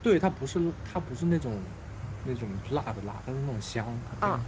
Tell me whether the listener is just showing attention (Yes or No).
No